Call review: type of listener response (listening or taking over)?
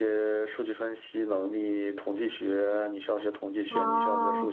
listening